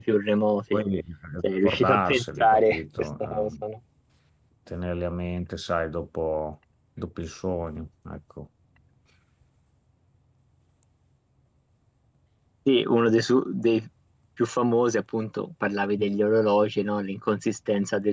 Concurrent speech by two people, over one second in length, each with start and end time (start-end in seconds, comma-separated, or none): 1.4-3.5